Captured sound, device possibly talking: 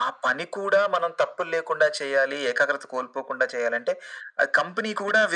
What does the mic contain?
echo only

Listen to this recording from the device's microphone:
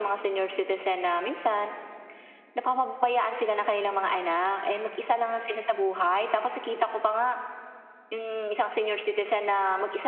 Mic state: echo only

